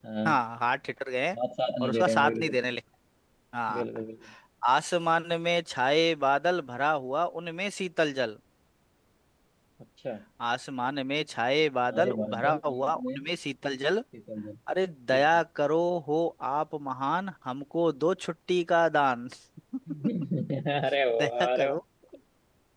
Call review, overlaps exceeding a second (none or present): present